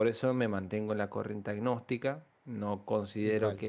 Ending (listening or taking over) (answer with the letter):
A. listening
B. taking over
A